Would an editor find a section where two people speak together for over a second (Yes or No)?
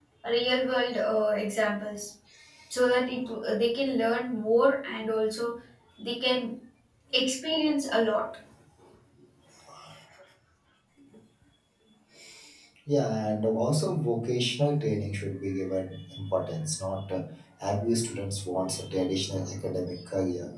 No